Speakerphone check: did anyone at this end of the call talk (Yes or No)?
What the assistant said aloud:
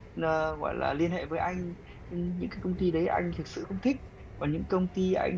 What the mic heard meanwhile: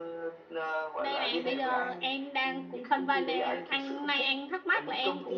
Yes